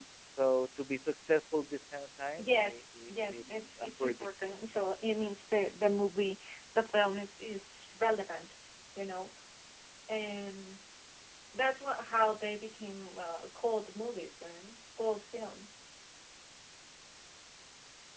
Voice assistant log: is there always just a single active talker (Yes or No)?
No